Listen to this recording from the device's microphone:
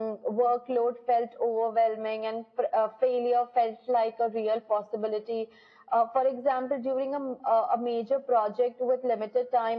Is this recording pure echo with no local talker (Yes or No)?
Yes